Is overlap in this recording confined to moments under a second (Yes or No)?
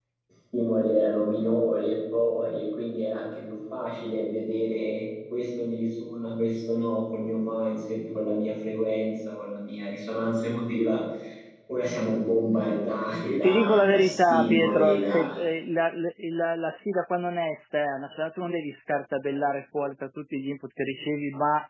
No